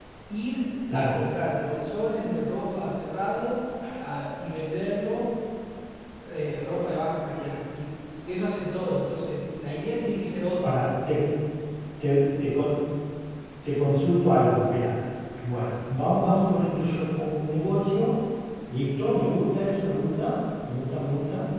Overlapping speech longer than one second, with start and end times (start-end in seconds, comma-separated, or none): none